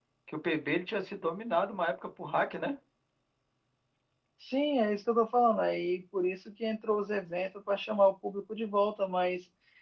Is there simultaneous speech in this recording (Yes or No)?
No